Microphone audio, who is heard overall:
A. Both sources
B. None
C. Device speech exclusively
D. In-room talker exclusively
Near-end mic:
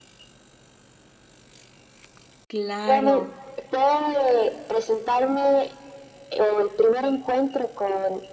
A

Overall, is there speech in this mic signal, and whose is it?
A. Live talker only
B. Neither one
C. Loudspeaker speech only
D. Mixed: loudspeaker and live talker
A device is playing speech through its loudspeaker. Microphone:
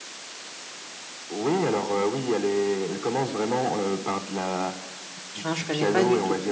D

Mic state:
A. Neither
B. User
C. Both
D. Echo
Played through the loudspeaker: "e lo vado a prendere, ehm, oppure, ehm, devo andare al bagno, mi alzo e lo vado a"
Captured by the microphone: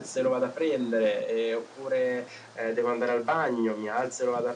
D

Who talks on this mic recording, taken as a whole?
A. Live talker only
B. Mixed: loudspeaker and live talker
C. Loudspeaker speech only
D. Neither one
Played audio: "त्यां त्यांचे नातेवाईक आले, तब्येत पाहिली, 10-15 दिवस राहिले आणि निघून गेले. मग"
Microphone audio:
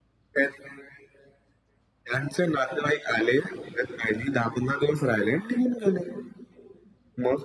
C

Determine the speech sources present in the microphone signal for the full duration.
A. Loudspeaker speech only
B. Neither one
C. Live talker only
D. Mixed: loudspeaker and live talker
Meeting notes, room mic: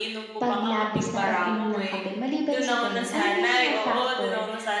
A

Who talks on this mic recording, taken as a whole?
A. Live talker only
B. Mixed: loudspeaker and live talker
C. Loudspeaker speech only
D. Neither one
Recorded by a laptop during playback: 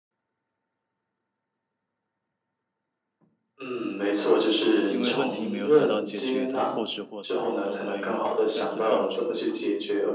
B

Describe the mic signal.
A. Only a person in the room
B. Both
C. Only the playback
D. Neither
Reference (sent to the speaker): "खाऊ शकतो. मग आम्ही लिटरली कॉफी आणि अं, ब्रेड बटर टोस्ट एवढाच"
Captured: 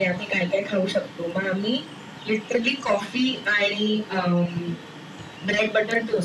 C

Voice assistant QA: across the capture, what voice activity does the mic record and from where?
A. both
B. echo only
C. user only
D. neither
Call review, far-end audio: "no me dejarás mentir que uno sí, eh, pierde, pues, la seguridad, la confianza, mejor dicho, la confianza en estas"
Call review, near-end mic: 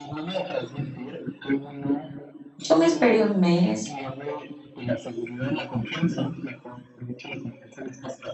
A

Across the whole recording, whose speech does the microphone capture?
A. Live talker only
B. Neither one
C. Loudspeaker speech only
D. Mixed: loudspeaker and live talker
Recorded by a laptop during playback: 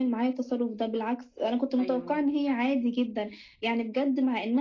D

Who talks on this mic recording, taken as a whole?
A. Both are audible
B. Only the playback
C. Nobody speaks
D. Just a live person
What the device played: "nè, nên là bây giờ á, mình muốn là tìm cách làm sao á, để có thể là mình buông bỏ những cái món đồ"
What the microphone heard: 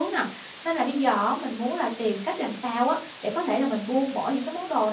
B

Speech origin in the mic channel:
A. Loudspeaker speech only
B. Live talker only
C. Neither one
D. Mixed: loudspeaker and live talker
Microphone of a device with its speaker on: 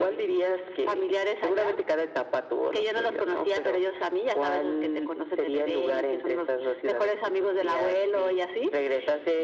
A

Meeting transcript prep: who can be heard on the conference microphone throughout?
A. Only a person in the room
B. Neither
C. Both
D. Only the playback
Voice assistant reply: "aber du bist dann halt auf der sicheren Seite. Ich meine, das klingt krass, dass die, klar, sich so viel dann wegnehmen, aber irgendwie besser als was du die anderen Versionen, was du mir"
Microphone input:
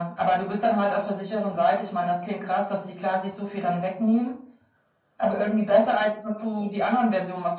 D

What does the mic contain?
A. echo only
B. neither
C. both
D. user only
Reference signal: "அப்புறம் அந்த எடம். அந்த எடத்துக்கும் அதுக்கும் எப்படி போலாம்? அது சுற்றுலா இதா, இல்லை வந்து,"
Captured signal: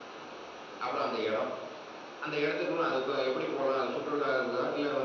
A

